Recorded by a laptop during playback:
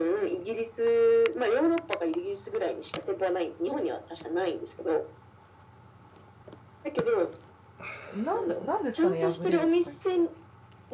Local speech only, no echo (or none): なん、なんですかね、破れるとか言って。